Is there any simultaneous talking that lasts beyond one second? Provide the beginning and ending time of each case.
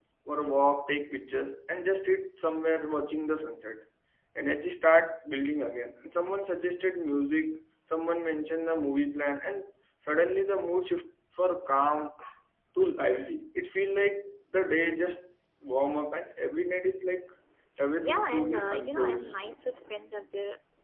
18.0-19.4

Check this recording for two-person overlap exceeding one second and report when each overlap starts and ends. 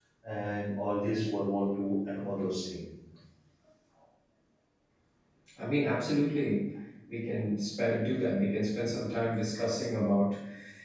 none

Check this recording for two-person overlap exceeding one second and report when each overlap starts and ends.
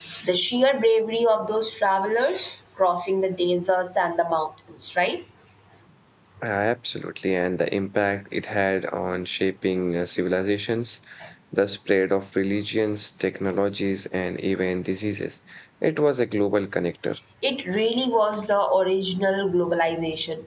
none

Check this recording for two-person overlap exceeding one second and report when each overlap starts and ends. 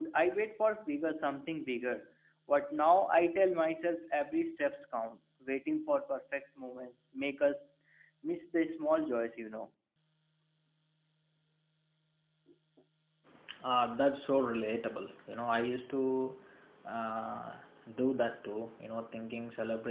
none

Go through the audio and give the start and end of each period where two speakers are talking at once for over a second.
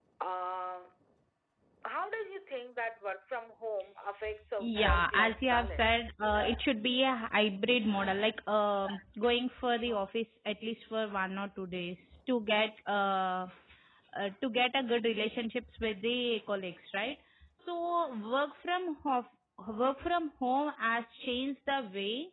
4.6-6.1

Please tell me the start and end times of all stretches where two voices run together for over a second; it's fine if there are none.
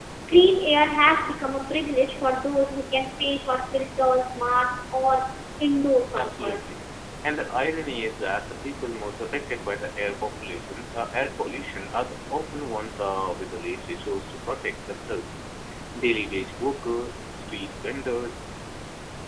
none

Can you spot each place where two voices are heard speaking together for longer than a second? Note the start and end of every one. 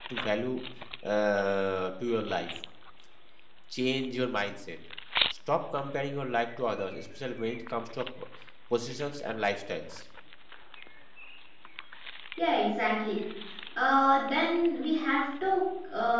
none

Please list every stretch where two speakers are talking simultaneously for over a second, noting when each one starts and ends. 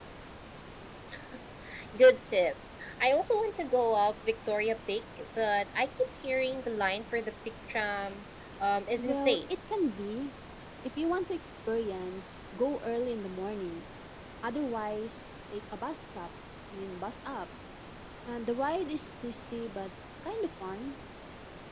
none

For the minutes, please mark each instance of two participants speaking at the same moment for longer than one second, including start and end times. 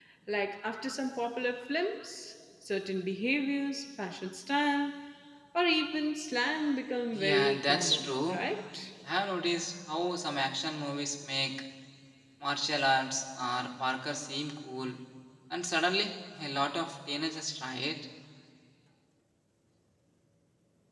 7.1-8.4

